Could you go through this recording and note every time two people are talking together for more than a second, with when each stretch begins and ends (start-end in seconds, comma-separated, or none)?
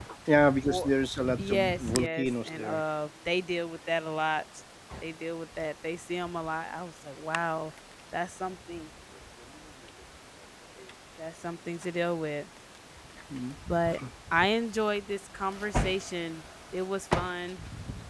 1.5-2.8